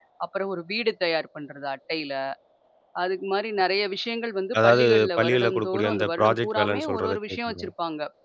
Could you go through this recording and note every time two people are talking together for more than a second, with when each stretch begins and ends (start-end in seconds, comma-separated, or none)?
4.6-7.7